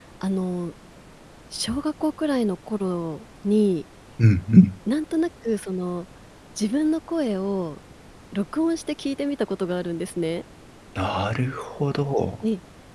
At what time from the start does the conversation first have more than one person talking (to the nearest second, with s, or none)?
none